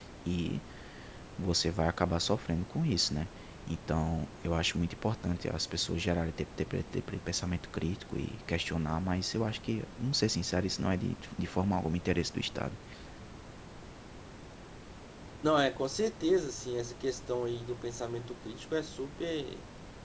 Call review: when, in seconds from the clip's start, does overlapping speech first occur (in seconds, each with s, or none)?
none